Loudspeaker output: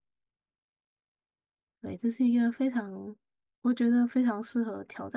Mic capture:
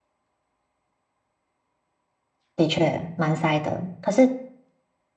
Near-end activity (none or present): present